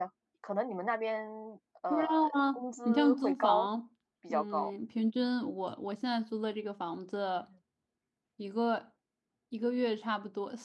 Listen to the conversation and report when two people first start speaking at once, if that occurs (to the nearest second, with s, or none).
2 s